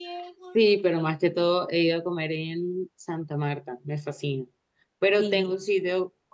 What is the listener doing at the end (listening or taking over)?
listening